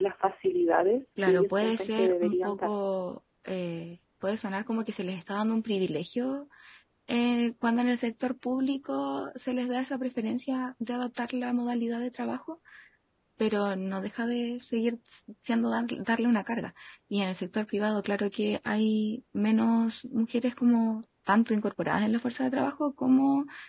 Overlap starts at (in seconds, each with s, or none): 1.2 s